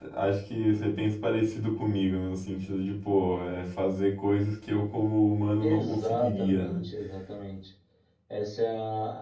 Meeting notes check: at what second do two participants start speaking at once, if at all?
6 s

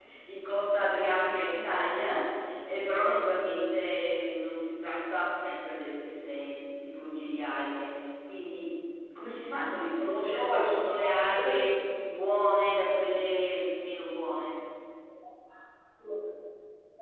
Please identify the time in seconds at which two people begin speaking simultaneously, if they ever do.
10 s

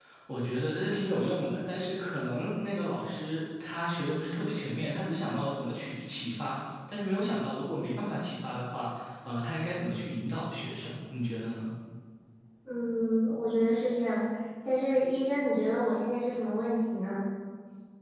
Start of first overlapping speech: none

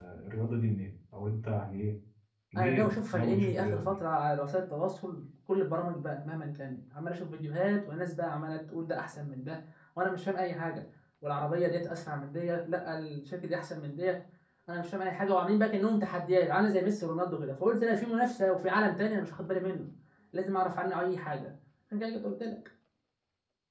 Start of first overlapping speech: 3 s

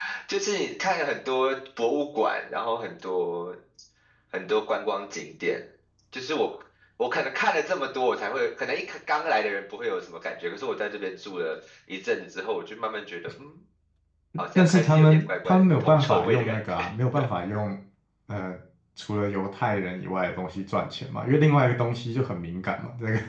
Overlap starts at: 15 s

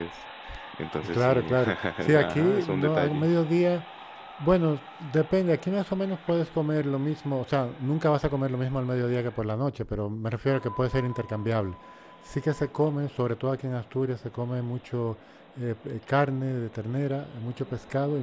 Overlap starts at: 1 s

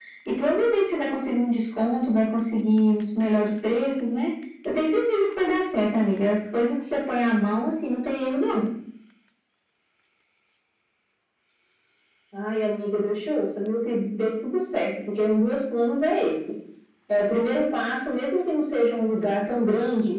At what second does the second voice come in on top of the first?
none

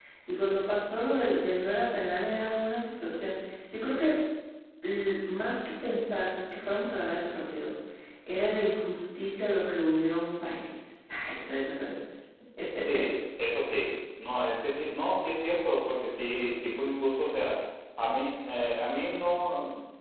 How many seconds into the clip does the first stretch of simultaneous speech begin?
none

